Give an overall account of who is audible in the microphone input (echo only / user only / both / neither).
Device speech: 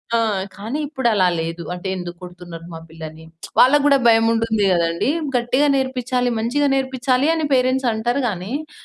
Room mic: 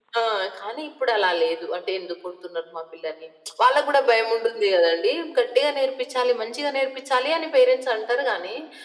echo only